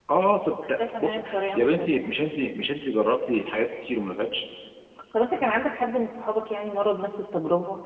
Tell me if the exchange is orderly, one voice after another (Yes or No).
No